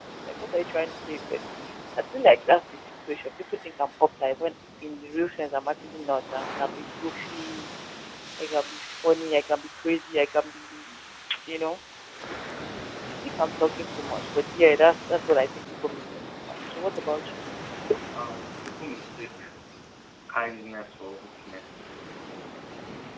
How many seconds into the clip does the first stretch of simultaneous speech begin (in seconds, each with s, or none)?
none